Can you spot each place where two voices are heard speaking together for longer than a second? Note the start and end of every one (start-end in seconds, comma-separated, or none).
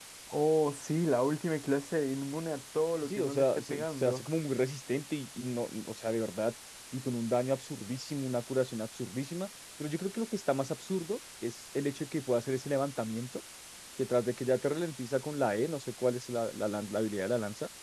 3.0-4.3